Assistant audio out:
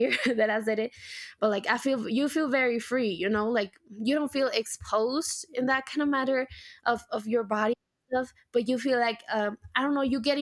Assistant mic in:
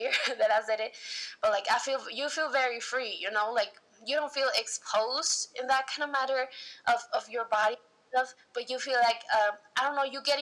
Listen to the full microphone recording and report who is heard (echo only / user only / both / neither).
echo only